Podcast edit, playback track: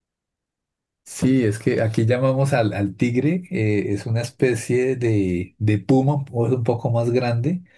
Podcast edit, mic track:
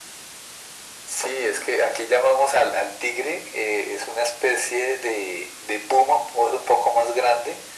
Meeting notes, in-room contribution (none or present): none